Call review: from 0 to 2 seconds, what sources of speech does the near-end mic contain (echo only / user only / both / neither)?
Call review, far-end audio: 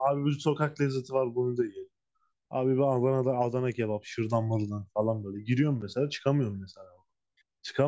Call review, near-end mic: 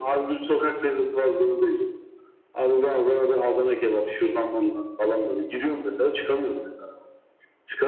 echo only